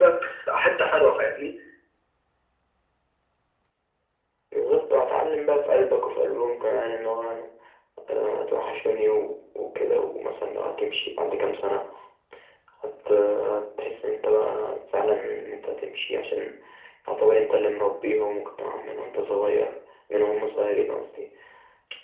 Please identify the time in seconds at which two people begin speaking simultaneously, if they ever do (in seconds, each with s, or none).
none